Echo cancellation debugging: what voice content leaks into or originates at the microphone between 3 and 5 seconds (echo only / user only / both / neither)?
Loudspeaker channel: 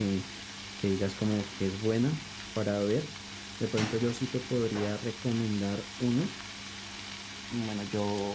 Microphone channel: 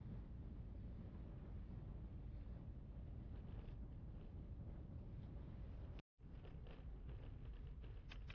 neither